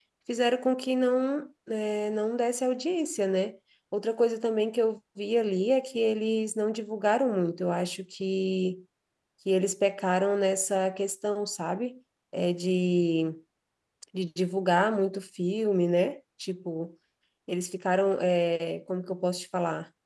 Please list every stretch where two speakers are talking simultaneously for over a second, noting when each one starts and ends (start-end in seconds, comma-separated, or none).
none